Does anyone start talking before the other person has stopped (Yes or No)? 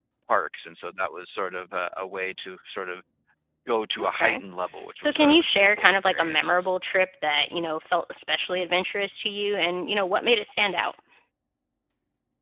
Yes